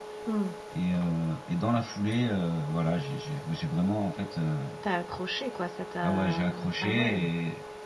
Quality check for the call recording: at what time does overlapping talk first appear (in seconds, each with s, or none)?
6.0 s